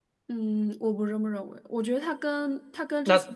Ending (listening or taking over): listening